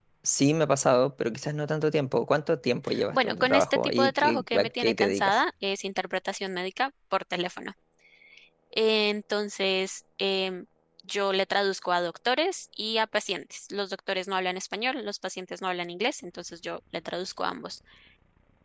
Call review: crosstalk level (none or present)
present